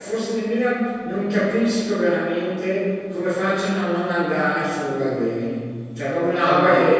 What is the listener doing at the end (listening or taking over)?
taking over